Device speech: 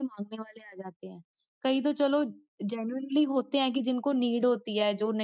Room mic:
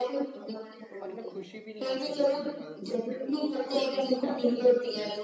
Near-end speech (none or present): present